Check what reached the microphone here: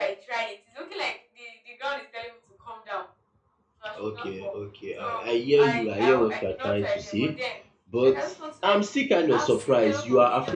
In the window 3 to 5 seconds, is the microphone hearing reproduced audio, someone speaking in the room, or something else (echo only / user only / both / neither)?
both